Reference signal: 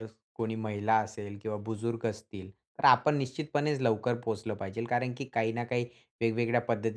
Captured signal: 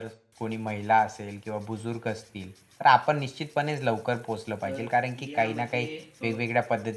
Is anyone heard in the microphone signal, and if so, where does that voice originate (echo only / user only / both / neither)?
both